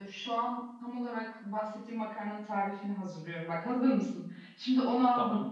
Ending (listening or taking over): listening